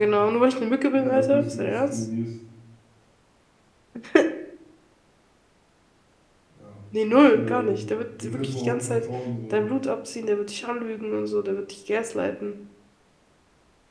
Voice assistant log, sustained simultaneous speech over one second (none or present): present